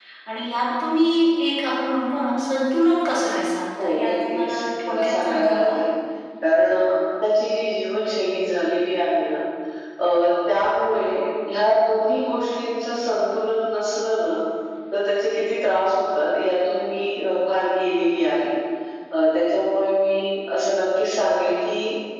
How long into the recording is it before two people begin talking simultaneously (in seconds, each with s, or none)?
3.8 s